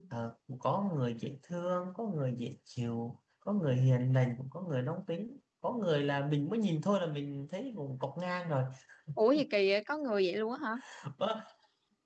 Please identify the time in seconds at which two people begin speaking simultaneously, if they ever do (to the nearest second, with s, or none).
none